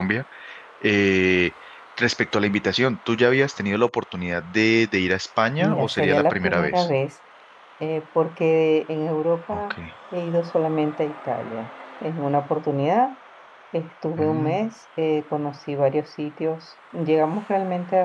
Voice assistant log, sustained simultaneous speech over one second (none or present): present